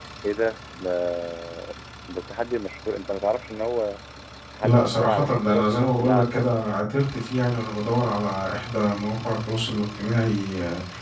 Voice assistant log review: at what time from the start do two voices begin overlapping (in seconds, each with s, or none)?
4.6 s